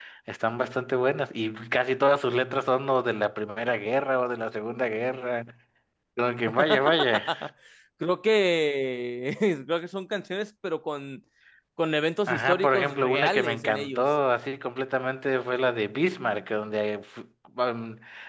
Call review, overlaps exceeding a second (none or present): present